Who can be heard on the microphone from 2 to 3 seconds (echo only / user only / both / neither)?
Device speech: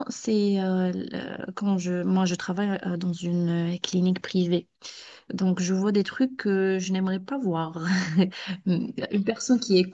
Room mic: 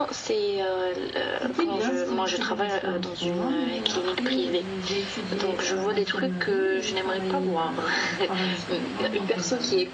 both